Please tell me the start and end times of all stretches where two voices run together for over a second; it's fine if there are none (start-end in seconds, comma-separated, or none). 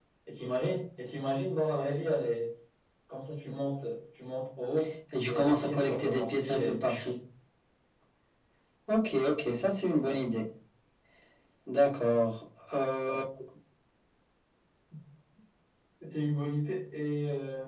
5.3-6.8